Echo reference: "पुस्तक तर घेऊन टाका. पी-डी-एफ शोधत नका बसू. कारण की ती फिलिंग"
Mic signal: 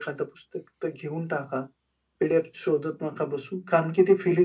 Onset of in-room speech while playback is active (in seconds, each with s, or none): none